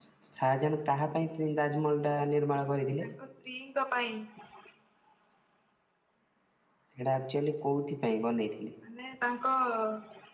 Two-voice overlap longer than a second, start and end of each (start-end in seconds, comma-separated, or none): none